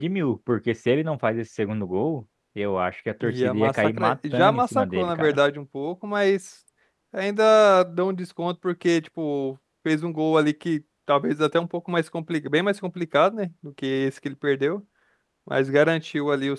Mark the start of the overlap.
3.2 s

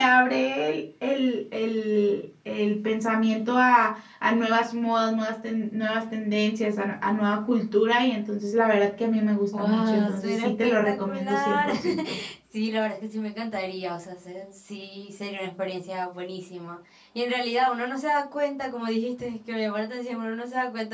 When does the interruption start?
9.5 s

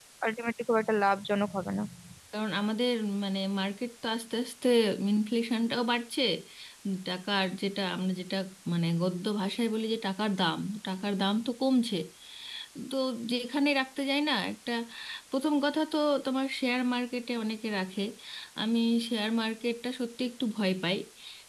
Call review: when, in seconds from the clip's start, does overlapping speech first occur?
none

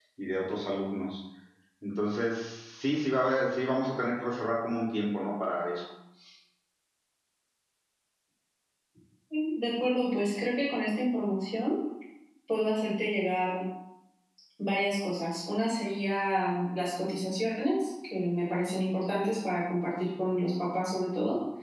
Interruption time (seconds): none

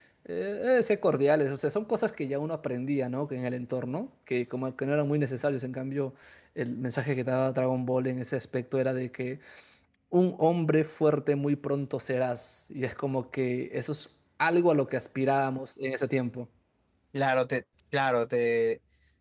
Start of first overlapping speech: none

